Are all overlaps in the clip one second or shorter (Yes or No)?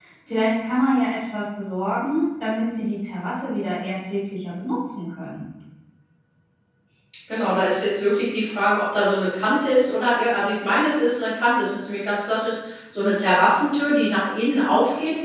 Yes